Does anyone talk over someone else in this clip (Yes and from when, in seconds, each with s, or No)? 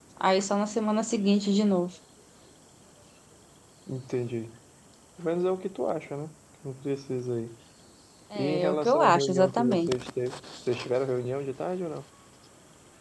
Yes, from 8.3 s